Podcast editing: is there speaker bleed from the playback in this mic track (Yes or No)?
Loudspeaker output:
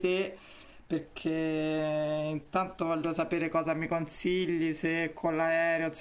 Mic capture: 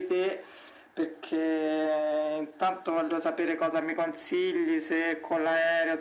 Yes